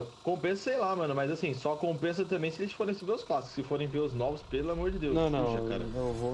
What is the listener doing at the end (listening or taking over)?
taking over